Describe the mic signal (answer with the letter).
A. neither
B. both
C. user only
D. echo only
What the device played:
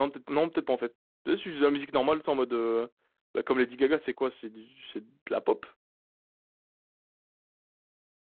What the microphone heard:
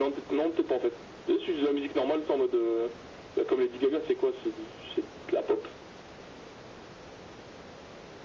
D